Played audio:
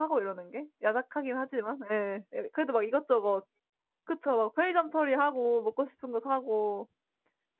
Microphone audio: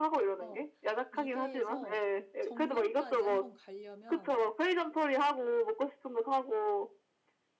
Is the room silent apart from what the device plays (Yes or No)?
No